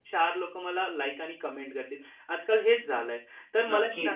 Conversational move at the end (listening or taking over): listening